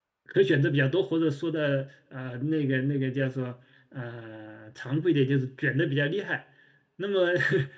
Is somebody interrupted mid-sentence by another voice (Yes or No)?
No